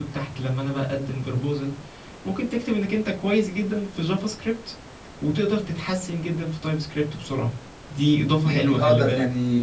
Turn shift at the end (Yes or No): Yes